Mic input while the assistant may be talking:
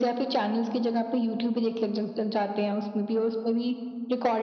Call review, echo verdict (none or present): present